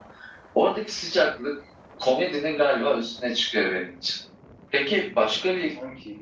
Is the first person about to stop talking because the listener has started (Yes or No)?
No